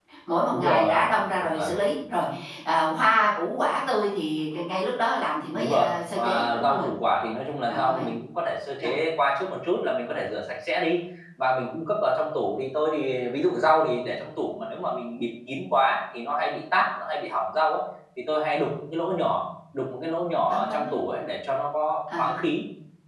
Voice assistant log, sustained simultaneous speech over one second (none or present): present